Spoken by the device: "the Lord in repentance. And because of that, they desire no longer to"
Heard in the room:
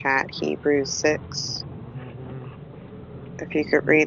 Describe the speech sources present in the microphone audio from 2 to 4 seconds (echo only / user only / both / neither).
user only